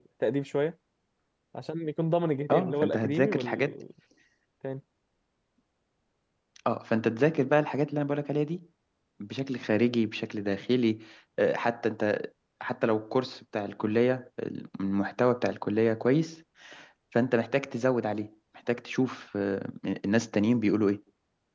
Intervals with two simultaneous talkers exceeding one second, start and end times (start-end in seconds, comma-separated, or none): 2.5-3.8